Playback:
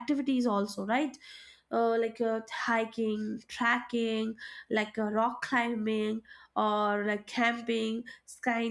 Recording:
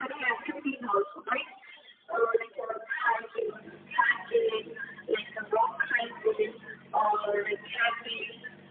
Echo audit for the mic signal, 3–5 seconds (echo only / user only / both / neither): echo only